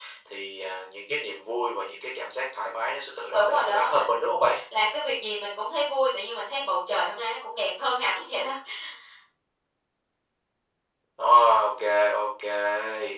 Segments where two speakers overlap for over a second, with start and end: 3.3-4.6

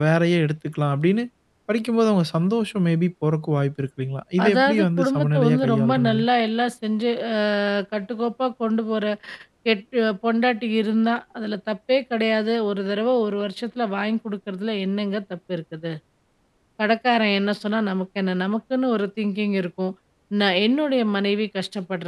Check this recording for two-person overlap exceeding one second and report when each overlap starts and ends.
4.4-6.2

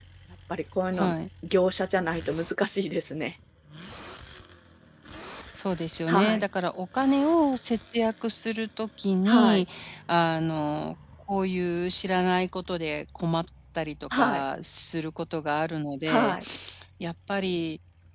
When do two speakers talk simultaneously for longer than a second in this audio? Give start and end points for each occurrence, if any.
none

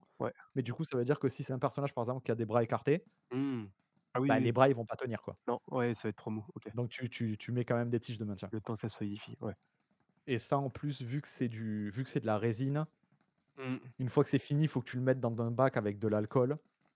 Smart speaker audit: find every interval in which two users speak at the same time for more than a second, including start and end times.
none

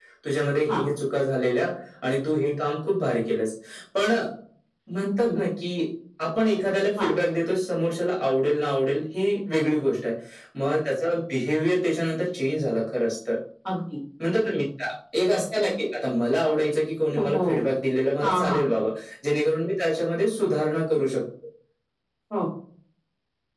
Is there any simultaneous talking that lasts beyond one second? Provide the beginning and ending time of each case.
none

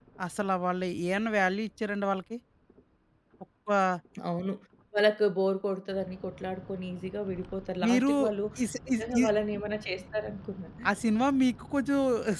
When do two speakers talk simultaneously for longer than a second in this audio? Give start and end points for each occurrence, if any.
none

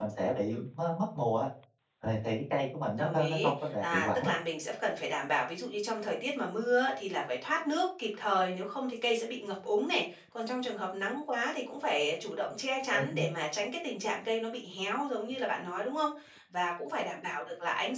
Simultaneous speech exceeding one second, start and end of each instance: 2.9-4.3

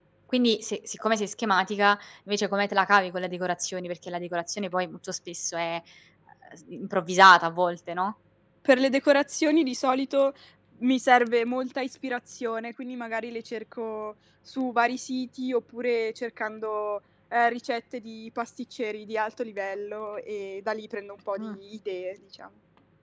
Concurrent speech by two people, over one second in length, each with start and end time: none

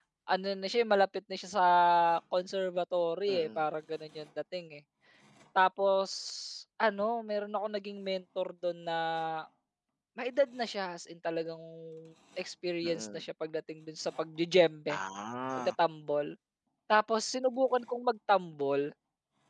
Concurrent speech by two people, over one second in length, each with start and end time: none

